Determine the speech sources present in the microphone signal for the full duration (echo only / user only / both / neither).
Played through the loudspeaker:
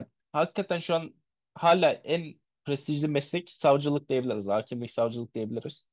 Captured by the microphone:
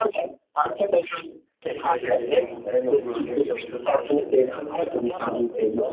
both